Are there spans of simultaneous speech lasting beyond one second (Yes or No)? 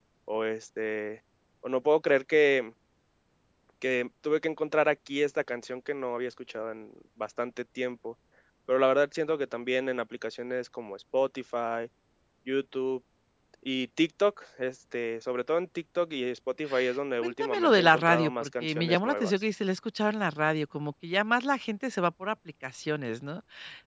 Yes